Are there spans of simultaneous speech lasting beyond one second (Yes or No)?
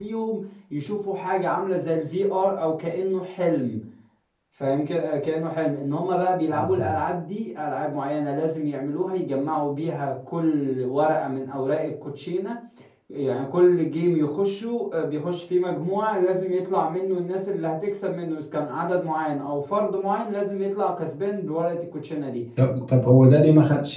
No